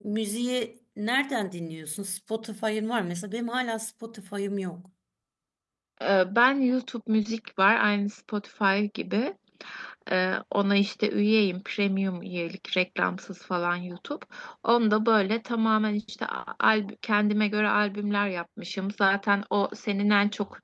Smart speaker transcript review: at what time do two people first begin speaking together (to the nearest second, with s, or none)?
none